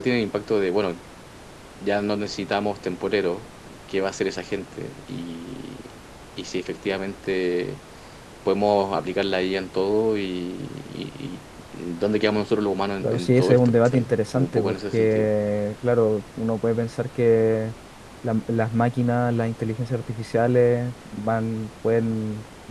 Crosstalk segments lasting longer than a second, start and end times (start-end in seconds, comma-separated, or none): 13.0-15.3